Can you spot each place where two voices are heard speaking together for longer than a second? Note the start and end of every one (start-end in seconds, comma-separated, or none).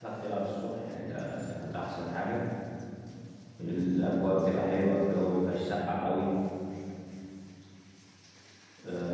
none